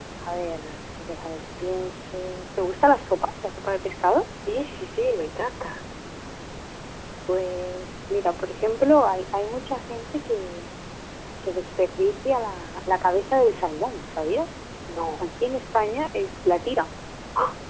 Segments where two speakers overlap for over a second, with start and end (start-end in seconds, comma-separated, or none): none